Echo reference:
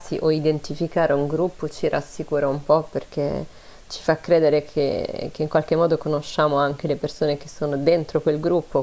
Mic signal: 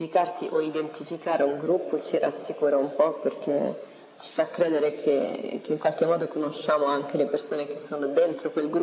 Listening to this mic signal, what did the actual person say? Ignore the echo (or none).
none